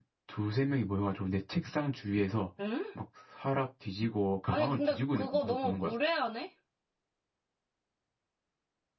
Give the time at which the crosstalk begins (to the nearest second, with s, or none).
4 s